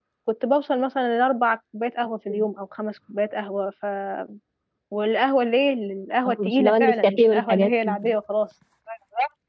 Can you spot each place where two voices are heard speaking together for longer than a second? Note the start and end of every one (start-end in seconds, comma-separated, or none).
6.2-8.1